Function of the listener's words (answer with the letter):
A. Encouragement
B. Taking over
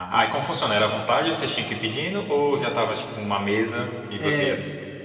B